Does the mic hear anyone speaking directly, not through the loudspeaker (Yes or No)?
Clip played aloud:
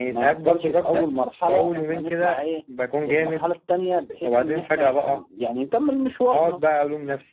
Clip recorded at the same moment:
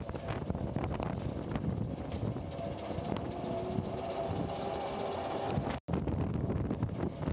No